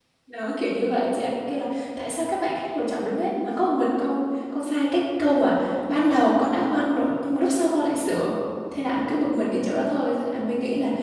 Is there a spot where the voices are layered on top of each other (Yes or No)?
No